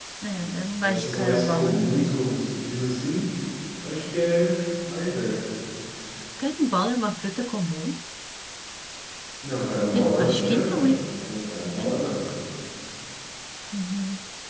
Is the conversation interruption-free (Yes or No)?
No